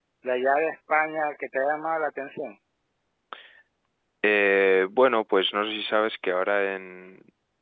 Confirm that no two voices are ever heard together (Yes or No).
Yes